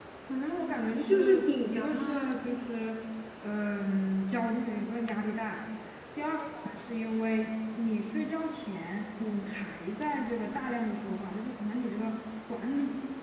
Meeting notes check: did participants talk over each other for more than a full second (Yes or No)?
Yes